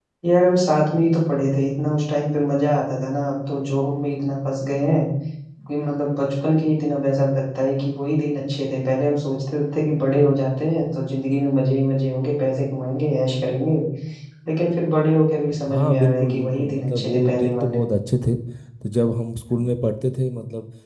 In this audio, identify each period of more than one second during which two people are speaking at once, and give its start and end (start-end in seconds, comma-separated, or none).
15.7-17.8